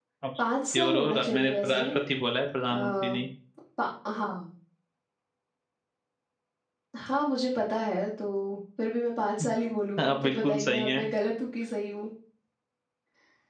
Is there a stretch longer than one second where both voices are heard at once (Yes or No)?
Yes